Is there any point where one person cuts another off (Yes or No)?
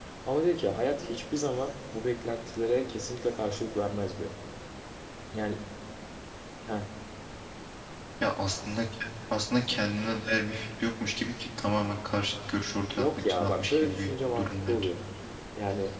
Yes